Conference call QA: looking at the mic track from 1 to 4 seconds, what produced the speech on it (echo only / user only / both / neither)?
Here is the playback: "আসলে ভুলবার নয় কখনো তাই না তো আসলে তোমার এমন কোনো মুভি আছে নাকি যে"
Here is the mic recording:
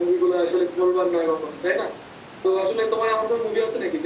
echo only